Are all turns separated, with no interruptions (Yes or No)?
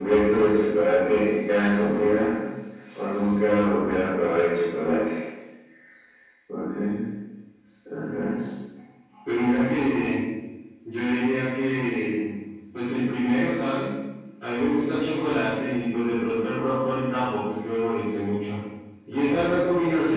Yes